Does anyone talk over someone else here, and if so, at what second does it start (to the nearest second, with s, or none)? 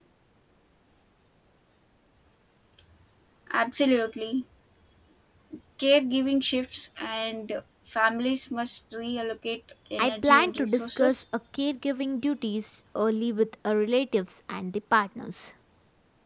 10 s